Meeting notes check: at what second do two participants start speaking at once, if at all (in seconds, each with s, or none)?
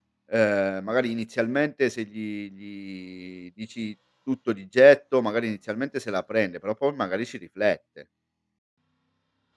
none